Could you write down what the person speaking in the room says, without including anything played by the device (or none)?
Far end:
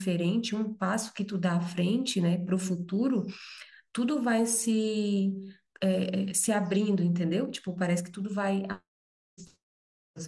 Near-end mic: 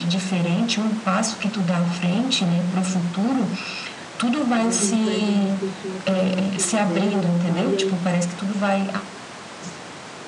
Às vezes a gente vai vendo as pessoas fazendo as coisas delas e tal, e a- e